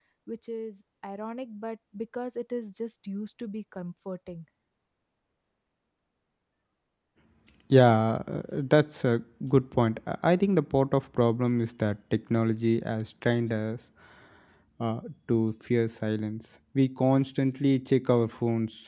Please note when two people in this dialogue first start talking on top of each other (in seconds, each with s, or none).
none